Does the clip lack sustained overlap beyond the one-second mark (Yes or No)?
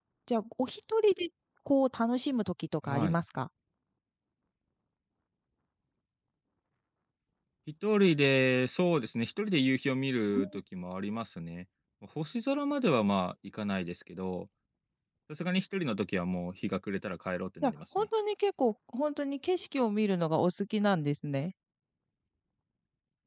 Yes